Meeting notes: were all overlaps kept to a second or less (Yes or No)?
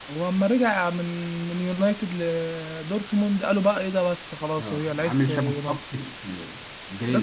No